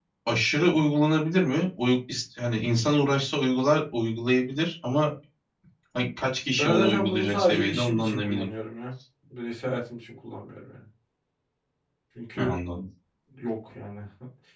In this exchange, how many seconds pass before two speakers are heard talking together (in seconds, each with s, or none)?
6.6 s